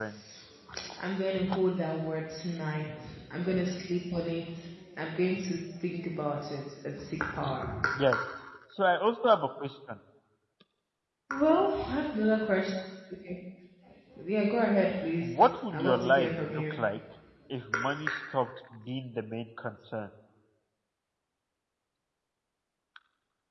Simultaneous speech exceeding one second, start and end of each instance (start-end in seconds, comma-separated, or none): 15.2-16.8